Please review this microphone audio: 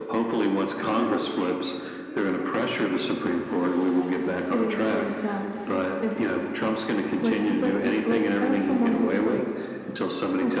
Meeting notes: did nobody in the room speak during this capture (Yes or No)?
No